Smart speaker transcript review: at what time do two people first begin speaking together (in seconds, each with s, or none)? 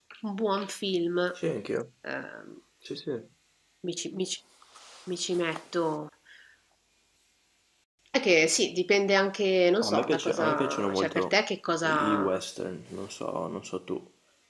9.8 s